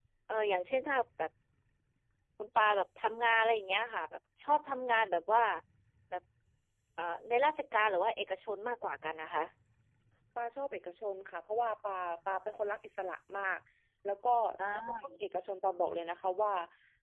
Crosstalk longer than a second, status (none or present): none